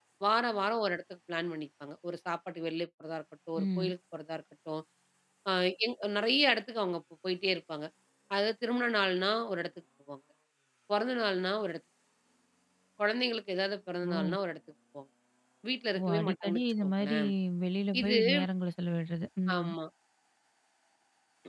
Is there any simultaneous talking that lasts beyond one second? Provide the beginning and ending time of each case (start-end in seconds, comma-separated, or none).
16.0-17.2